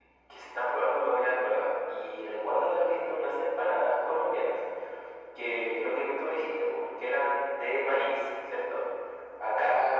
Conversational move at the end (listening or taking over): listening